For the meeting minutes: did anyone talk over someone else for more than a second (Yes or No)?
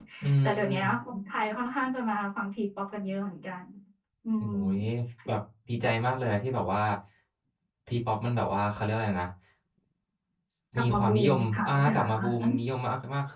Yes